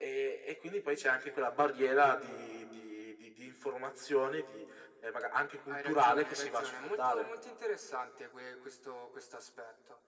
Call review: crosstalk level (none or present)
present